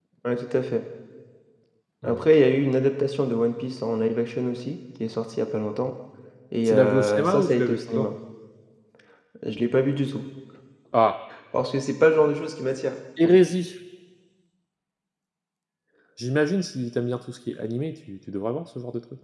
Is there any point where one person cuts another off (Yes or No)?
Yes